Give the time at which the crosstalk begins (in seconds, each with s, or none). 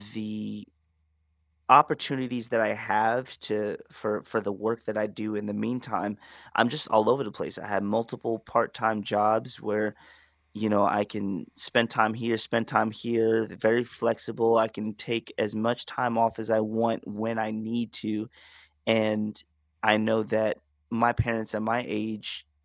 none